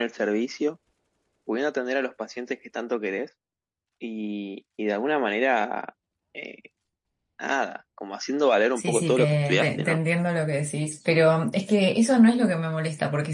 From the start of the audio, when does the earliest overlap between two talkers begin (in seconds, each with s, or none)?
8.8 s